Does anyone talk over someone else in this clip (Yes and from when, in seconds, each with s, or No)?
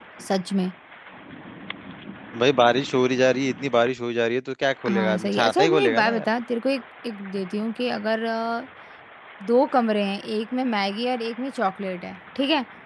Yes, from 4.8 s